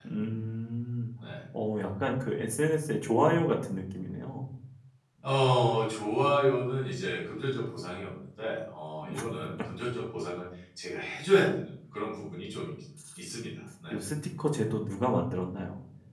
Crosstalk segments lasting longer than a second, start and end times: none

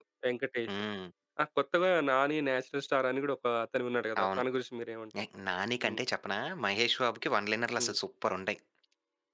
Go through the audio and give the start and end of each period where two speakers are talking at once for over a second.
none

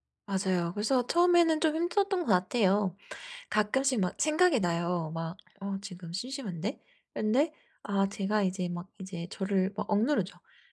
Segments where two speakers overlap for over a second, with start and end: none

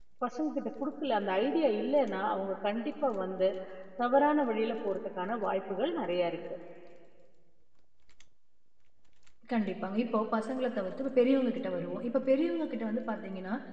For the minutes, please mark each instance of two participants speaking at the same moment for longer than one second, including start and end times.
none

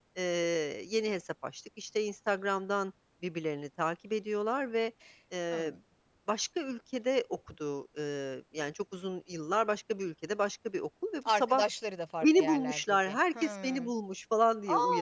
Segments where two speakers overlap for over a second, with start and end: 12.4-13.9

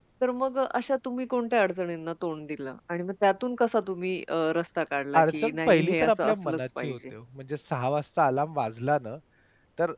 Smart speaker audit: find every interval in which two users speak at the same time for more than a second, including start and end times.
5.2-7.0

